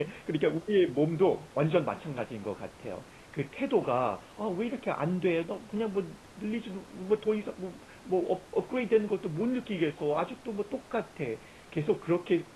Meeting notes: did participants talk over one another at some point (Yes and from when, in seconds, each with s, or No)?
No